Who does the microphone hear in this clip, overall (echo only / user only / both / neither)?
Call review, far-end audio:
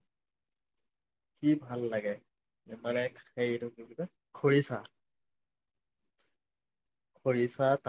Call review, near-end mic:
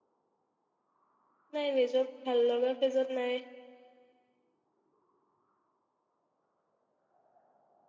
user only